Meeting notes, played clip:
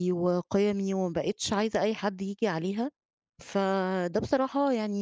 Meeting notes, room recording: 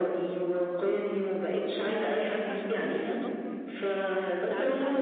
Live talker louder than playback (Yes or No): No